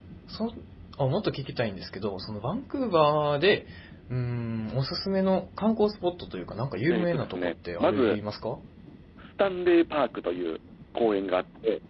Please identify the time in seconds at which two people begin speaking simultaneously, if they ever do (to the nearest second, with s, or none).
7 s